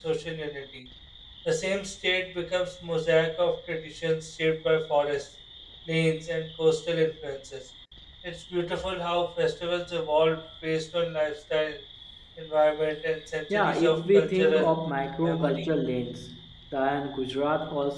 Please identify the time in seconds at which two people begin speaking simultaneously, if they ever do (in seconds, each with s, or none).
13.5 s